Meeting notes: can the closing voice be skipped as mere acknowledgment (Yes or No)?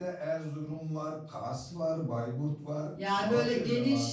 No